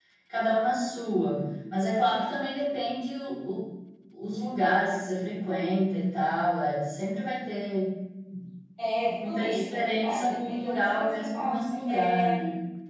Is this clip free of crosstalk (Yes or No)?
No